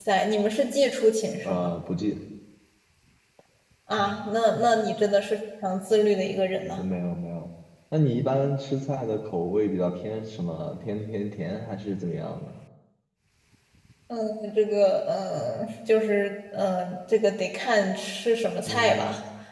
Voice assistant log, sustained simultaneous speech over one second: none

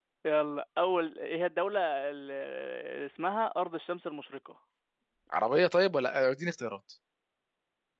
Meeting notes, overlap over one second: none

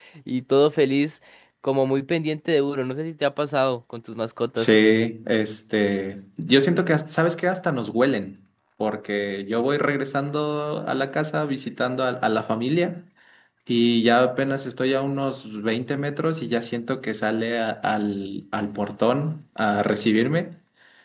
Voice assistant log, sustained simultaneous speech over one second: none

